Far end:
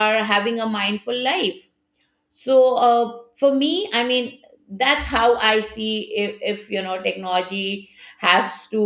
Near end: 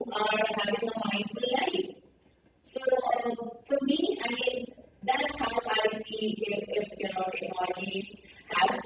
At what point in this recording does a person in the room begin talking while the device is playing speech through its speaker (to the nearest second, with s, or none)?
none